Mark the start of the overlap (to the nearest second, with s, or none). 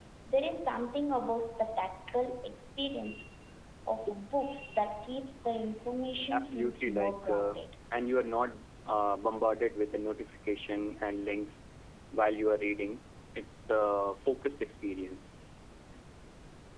6 s